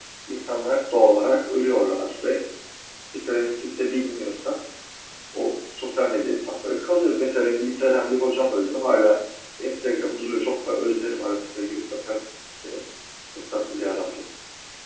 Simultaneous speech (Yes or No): No